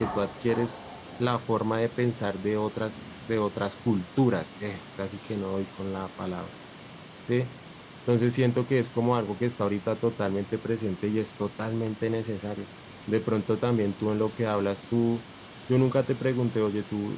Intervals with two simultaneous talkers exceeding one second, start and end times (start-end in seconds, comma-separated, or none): none